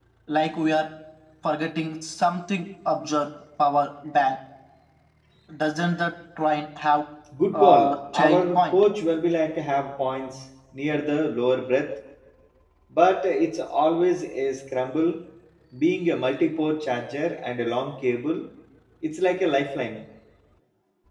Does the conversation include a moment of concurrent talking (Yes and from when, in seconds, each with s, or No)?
Yes, from 7.5 s